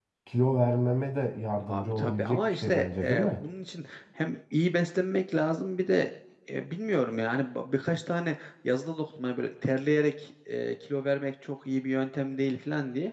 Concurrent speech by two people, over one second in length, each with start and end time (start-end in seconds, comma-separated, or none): 1.7-3.4